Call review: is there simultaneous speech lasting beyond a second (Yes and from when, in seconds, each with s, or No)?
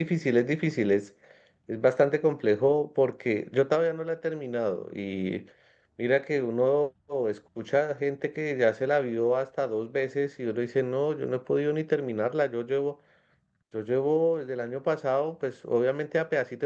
No